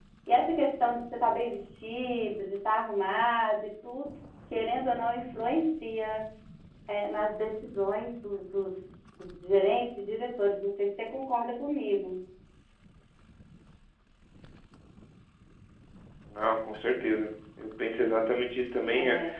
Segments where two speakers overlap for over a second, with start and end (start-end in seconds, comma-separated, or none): none